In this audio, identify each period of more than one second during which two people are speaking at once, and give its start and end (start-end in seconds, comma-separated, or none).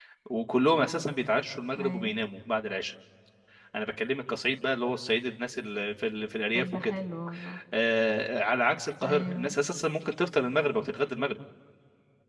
none